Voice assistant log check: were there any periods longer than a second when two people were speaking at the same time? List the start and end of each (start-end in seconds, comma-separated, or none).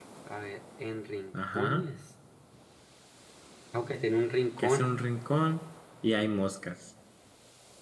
none